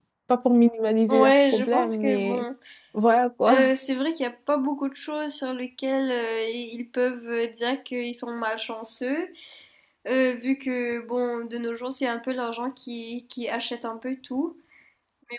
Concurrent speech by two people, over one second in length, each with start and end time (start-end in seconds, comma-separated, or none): 1.1-2.4